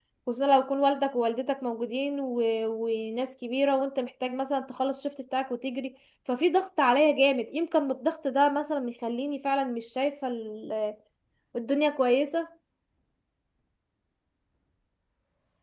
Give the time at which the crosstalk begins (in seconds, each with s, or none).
none